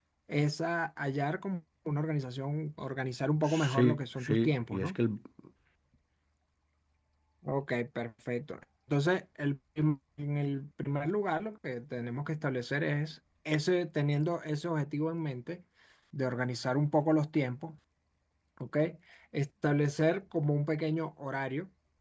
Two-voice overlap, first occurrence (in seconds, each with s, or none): 3.4 s